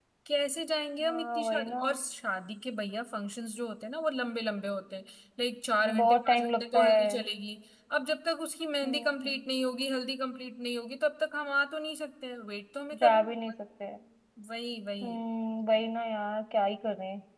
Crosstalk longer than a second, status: present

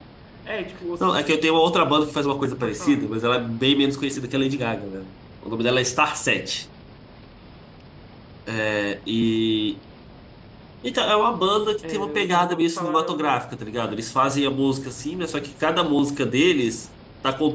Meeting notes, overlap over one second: present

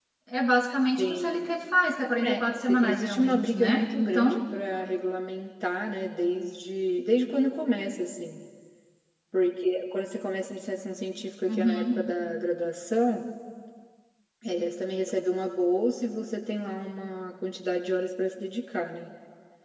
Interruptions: present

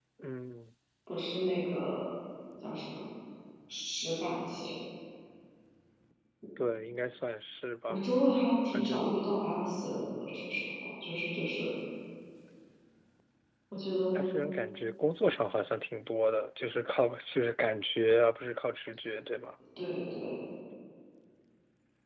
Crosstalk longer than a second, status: none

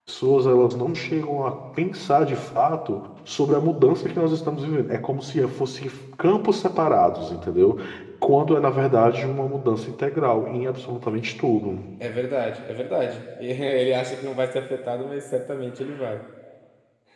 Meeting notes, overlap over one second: none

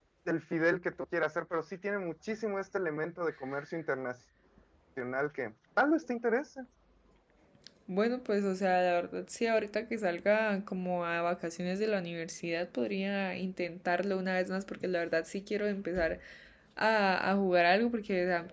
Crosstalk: none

